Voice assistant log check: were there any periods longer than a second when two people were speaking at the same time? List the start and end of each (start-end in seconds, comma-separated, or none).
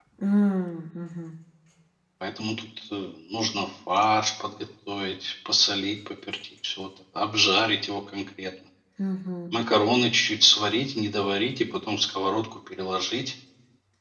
none